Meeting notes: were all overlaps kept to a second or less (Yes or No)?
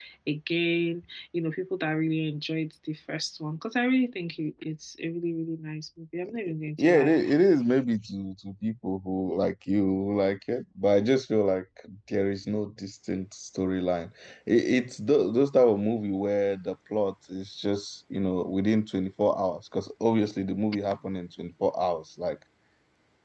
Yes